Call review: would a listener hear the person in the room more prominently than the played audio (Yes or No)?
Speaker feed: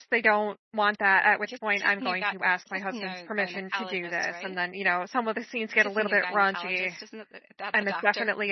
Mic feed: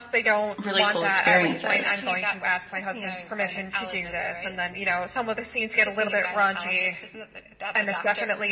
Yes